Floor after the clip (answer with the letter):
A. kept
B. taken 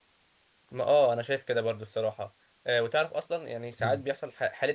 A